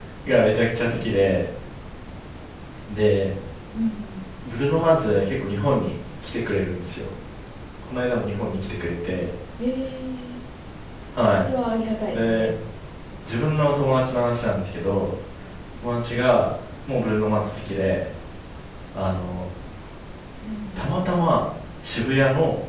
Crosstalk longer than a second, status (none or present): none